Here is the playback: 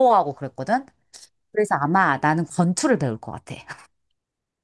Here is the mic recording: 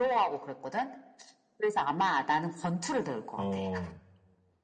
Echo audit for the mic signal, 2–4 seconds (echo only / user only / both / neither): both